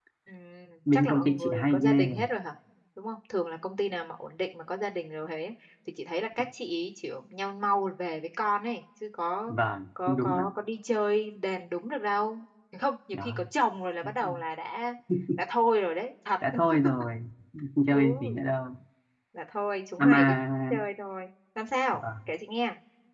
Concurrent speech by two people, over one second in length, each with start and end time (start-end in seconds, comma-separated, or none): 0.9-2.2